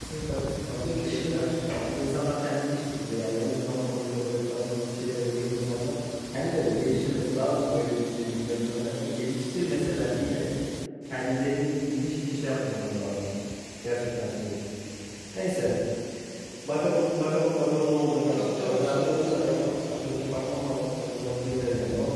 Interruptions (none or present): present